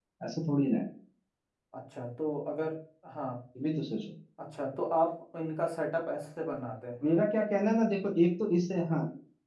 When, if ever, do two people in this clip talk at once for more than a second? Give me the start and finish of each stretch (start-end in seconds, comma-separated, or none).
none